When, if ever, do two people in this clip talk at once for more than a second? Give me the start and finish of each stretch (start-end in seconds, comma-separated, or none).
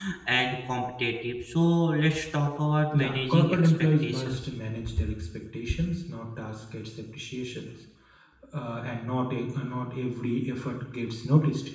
2.9-4.4